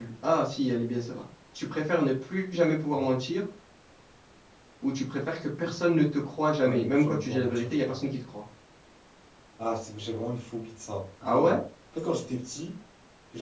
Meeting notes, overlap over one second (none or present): present